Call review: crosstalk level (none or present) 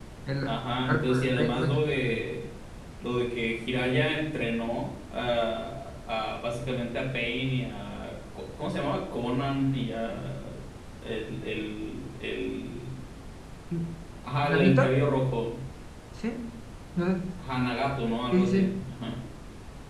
present